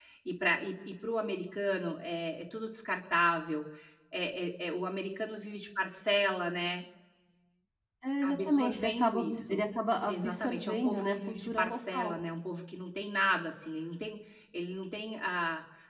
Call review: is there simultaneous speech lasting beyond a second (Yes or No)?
Yes